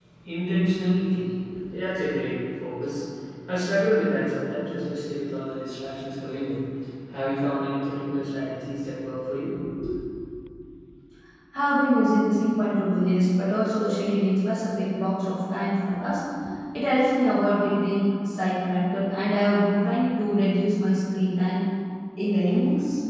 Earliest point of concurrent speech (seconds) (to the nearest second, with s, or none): none